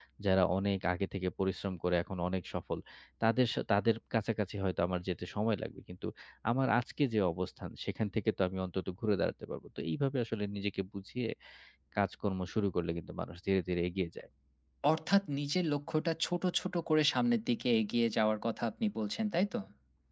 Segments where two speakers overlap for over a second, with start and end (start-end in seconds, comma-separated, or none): none